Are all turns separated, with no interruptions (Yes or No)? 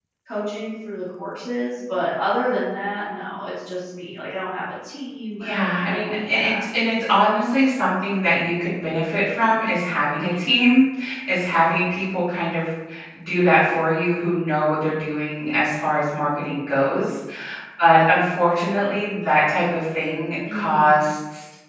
No